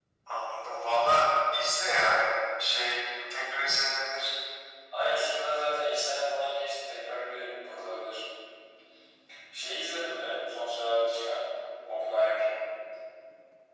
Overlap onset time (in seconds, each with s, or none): none